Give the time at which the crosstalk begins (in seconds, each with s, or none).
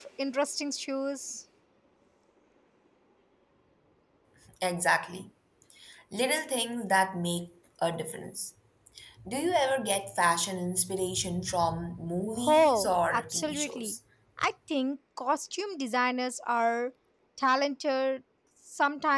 12.4 s